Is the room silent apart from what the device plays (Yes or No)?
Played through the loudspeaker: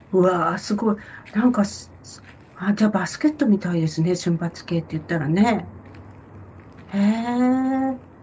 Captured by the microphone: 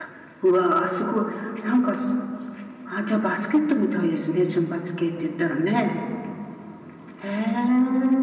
Yes